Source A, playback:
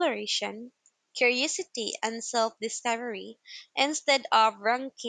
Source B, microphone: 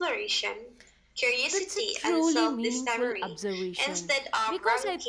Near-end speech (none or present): present